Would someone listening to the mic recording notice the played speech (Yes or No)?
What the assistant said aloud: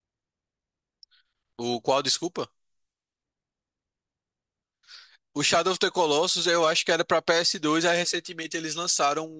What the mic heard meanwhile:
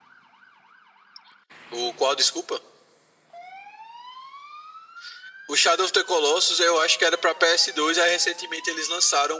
Yes